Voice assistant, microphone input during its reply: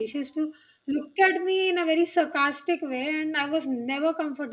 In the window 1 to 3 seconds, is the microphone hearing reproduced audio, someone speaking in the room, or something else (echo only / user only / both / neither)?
user only